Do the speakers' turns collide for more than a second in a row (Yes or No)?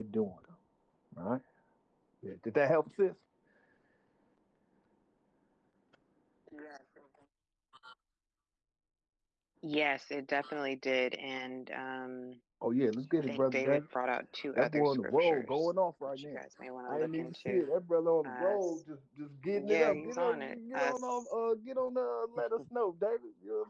Yes